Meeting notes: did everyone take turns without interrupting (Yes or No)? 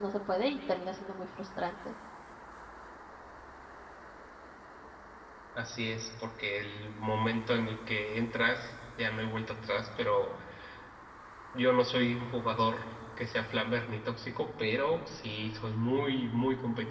Yes